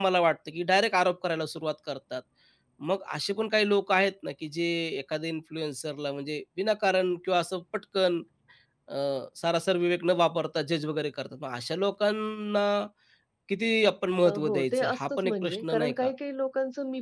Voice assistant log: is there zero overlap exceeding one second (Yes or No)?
No